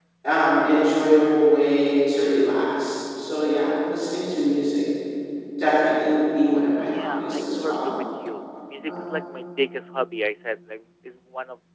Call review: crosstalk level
present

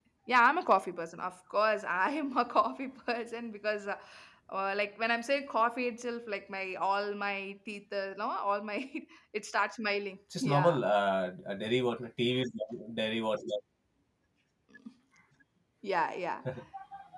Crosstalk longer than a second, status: none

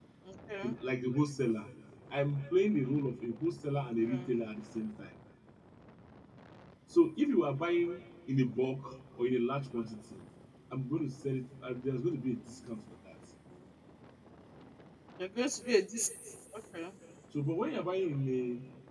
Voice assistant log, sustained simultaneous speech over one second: none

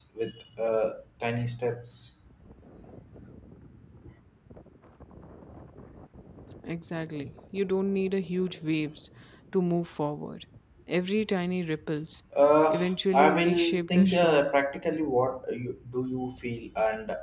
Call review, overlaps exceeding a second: present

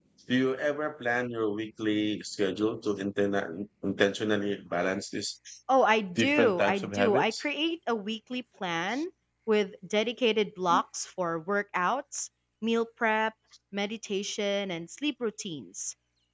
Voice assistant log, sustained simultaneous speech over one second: present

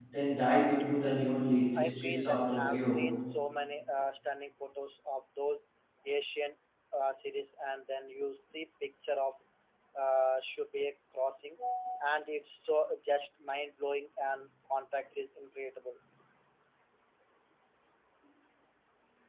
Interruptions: present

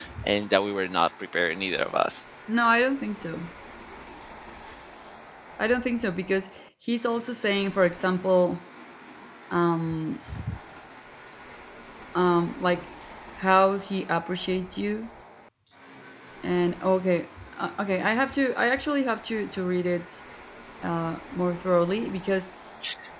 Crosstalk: none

